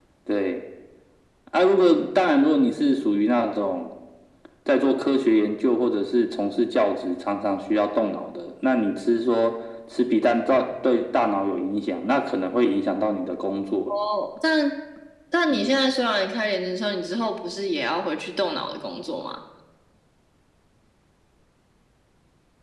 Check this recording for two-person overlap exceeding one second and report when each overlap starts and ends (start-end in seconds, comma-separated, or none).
none